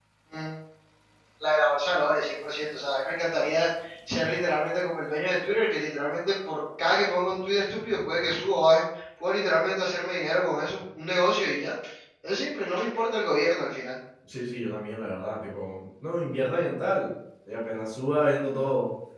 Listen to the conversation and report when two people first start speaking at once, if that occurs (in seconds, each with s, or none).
none